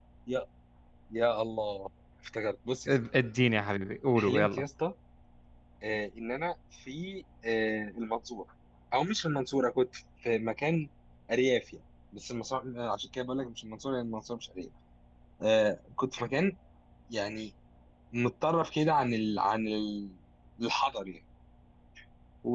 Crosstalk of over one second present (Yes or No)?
No